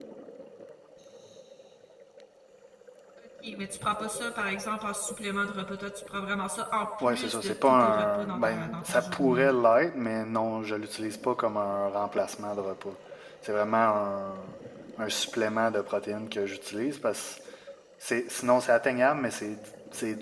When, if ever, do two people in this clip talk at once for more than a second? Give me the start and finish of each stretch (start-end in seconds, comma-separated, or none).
7.0-9.5